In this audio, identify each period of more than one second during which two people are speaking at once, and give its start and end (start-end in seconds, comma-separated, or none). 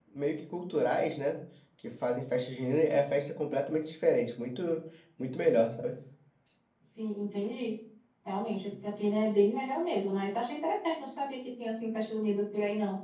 none